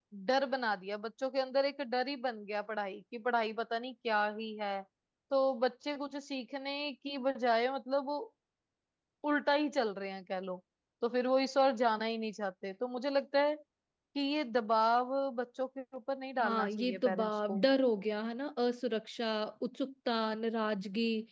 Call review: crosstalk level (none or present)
present